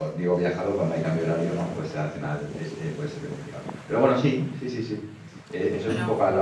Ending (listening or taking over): listening